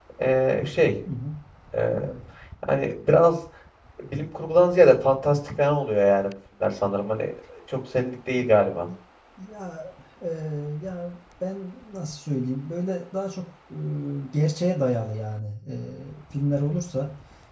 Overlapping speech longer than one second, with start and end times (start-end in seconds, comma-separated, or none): none